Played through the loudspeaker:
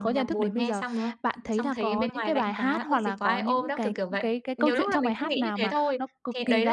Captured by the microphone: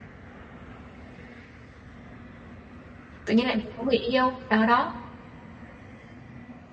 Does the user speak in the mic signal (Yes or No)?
Yes